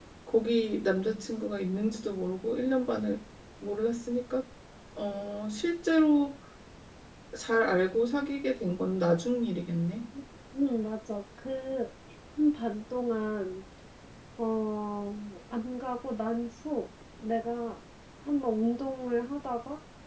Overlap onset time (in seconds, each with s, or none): none